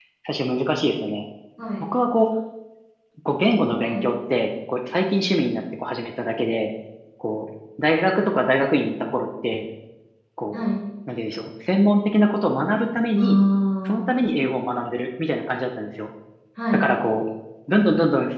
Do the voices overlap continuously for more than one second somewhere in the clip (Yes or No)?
No